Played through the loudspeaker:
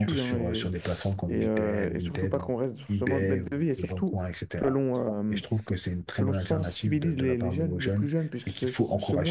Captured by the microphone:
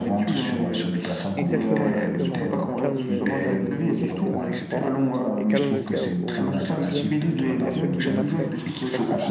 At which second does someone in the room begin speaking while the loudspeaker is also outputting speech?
1.3 s

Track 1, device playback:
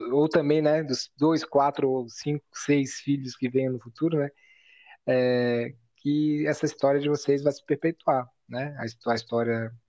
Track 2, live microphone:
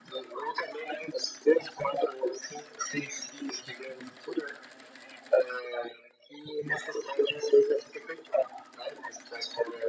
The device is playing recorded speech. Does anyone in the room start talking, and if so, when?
none

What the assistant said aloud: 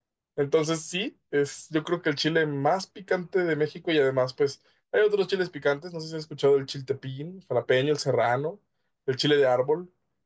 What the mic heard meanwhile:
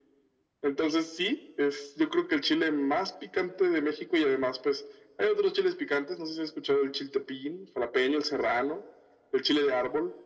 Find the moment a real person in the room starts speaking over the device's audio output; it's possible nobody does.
none

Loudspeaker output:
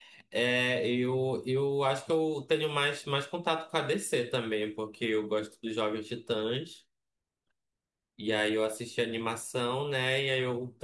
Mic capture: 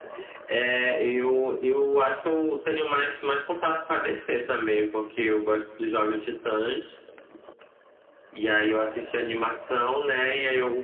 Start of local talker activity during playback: none

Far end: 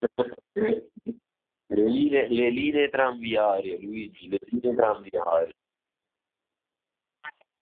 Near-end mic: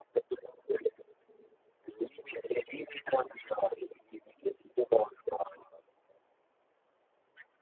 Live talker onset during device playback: none

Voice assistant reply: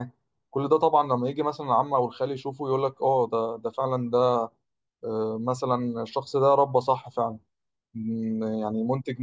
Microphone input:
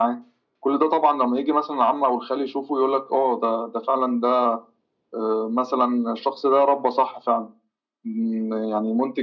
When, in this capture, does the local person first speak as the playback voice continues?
none

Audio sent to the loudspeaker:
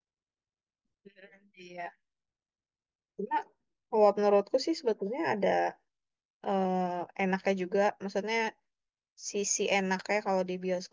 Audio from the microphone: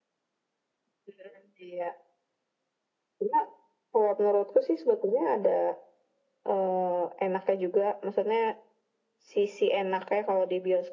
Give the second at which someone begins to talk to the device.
none

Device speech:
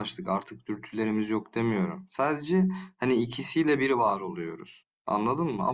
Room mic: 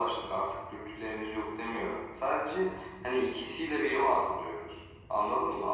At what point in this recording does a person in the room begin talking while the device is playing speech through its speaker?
none

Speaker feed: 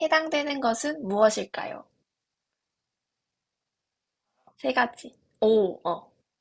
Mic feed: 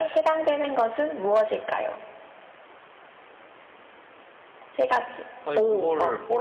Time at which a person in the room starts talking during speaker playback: 5.4 s

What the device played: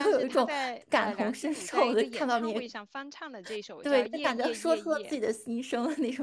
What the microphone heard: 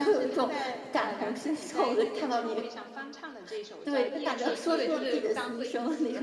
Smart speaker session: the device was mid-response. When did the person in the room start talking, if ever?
4.4 s

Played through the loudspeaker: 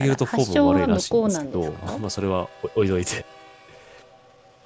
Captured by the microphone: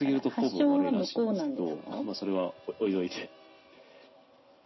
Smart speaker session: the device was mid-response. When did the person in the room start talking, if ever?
none

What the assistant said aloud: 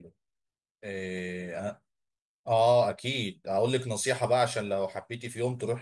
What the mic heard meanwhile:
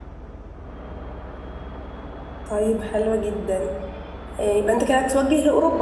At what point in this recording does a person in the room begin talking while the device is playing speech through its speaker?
2.5 s

